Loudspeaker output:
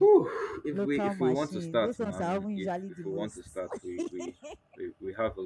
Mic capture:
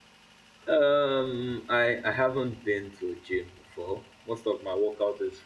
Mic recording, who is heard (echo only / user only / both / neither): user only